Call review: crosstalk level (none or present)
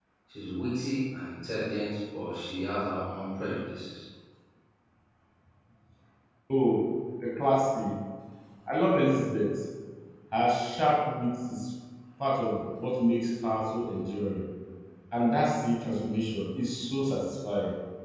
none